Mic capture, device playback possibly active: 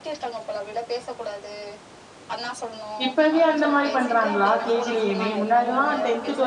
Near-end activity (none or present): present